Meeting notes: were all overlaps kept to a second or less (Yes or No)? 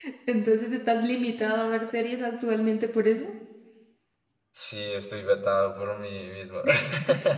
Yes